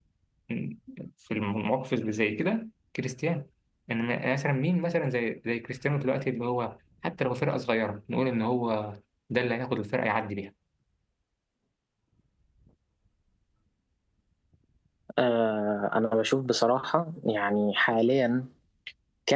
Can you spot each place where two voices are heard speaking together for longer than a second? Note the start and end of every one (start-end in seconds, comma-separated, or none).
none